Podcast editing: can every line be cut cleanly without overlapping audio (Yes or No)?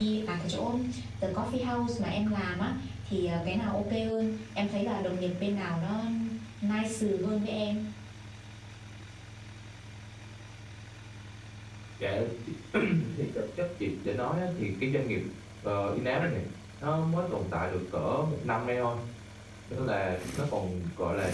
Yes